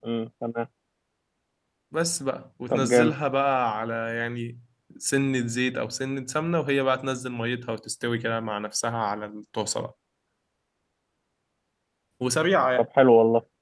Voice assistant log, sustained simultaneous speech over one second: none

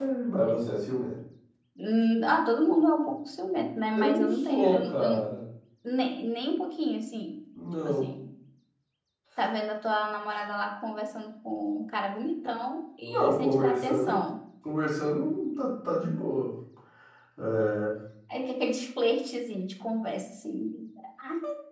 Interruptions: present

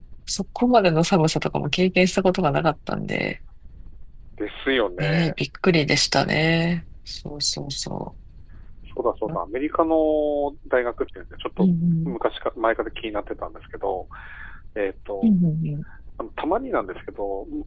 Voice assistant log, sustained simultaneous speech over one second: none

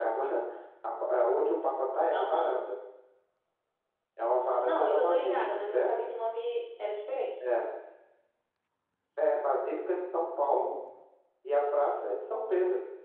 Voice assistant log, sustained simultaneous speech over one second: present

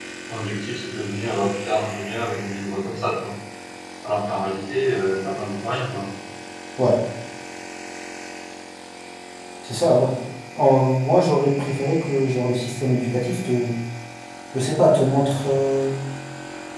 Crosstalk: none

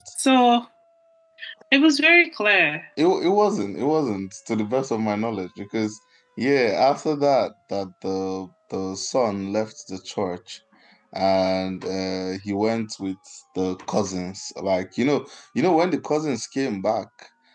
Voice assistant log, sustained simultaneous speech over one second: none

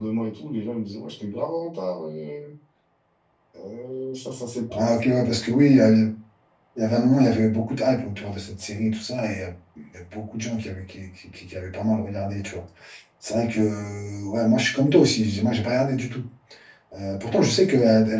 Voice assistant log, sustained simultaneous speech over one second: none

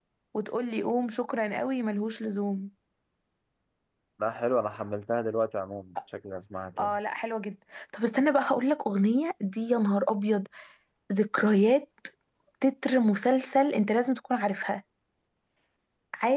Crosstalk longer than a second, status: none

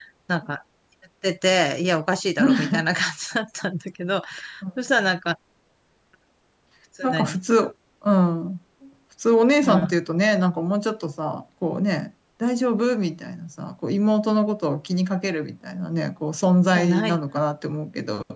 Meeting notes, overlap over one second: none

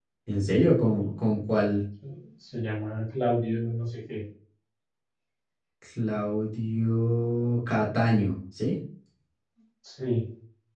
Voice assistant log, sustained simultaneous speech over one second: none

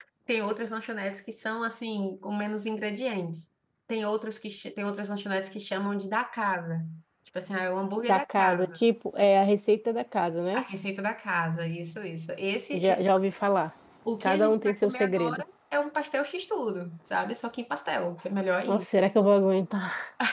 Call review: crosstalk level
present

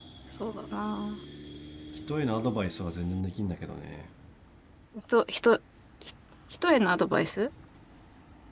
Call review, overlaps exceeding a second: none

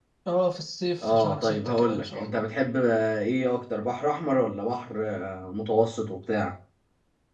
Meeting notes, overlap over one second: present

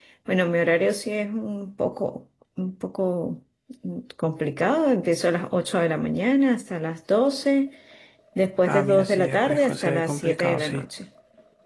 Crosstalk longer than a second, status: present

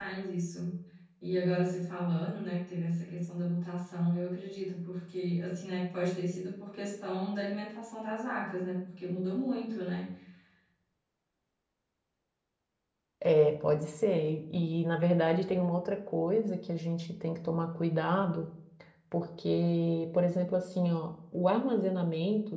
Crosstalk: none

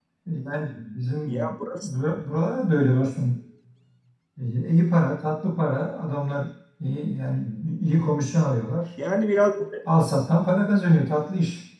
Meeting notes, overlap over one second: none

